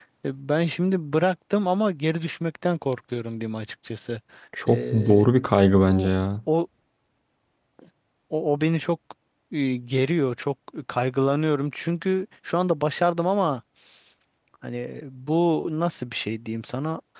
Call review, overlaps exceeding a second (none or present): none